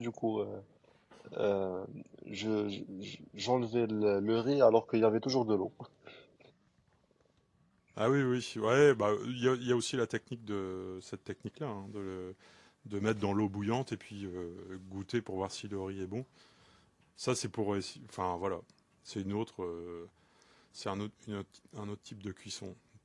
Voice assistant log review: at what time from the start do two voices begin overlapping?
none

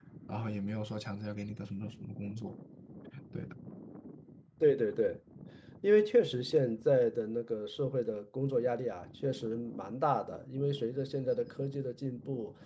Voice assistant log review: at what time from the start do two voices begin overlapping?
none

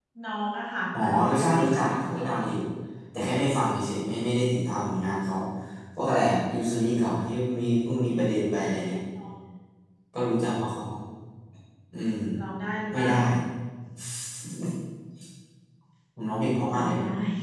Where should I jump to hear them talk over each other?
1.0 s

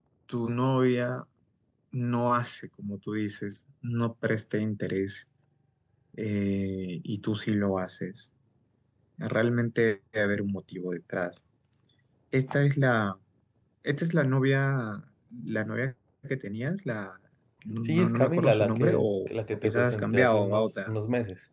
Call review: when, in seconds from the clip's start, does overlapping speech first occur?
17.8 s

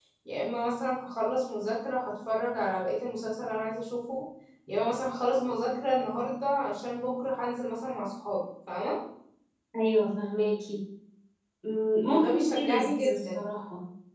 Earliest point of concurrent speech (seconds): 12.1 s

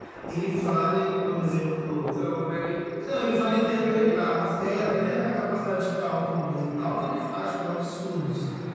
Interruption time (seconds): 3.7 s

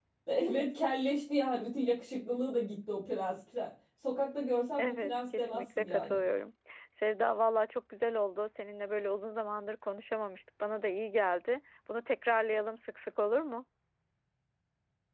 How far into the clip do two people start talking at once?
4.8 s

